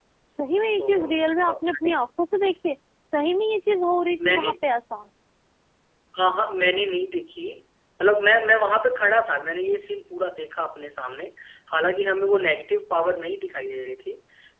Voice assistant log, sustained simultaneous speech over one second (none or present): present